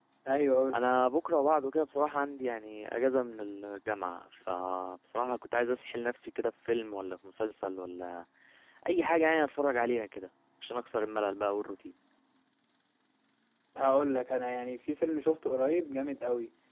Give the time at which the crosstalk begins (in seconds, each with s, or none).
none